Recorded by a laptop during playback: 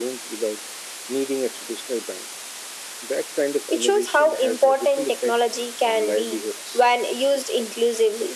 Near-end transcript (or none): none